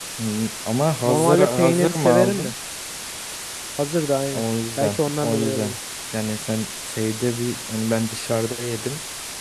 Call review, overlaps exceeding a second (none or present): present